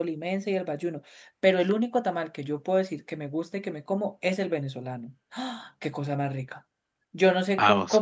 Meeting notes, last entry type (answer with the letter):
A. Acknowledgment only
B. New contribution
A